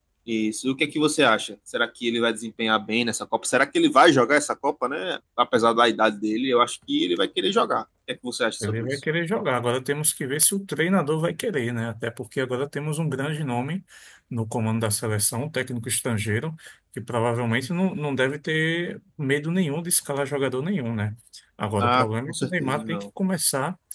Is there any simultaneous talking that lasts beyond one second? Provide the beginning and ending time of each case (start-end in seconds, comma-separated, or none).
21.8-23.0